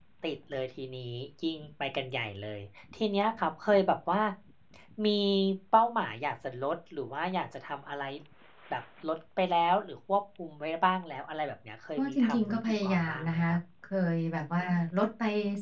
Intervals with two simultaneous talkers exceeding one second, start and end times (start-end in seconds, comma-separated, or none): 12.0-13.6